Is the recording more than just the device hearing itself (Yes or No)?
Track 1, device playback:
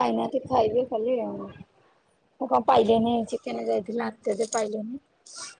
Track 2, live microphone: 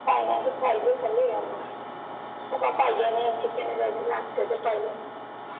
No